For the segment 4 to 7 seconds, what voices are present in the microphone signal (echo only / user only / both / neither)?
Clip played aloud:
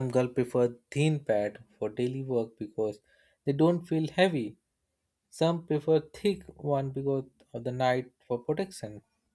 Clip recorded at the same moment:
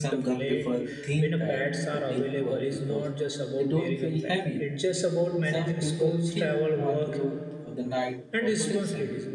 both